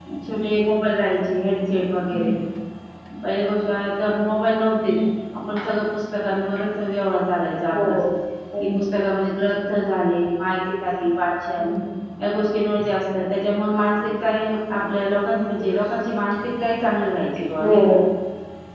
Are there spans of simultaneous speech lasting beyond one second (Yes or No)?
No